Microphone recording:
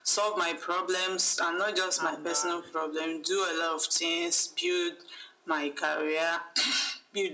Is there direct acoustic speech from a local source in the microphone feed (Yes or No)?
Yes